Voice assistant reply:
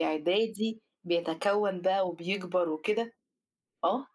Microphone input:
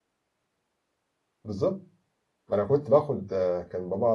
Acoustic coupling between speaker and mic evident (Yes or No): No